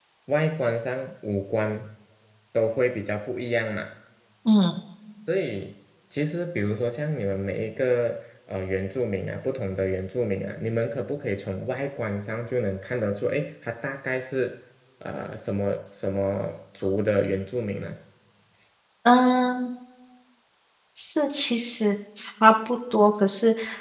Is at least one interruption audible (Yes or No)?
No